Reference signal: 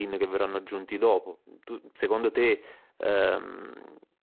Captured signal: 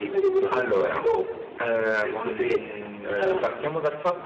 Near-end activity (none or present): present